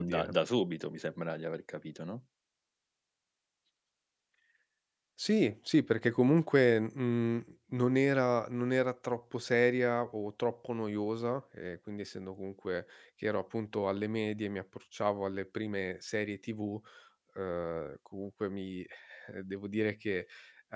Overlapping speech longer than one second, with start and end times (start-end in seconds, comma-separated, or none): none